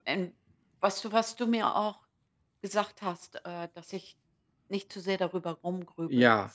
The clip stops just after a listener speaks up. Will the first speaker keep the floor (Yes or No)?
No